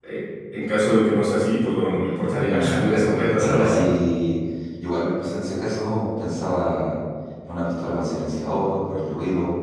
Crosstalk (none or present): present